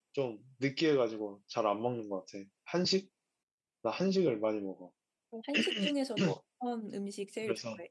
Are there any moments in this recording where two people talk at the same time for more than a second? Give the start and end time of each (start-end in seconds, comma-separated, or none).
none